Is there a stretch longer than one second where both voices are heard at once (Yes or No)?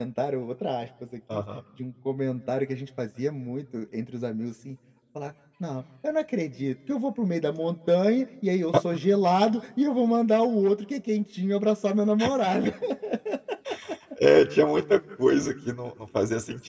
No